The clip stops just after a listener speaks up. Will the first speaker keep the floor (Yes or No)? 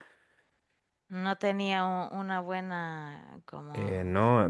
No